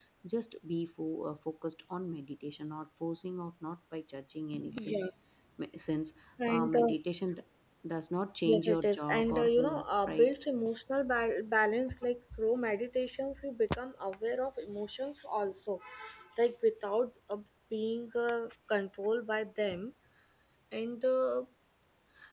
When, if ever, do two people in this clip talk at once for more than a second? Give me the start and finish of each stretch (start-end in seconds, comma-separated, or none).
8.5-10.3